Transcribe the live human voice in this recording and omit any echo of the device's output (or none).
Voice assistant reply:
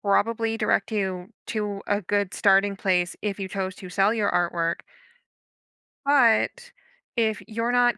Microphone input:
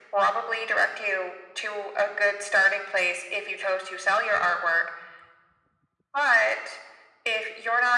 none